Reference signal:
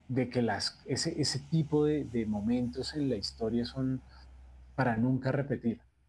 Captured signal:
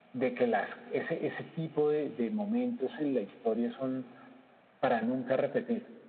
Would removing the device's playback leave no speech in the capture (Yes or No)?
Yes